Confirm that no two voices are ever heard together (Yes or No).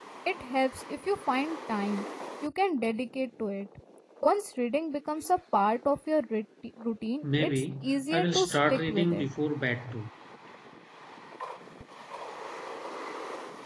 No